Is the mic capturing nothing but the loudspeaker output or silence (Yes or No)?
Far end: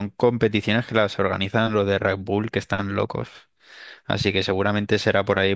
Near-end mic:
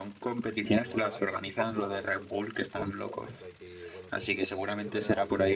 No